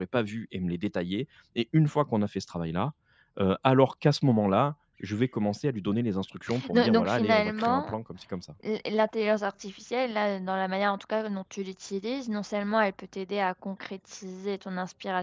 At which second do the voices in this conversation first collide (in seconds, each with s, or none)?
6.5 s